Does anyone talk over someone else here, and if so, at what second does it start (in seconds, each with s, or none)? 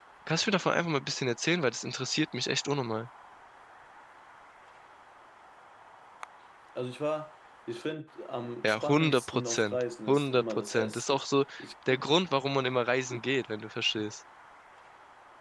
8.6 s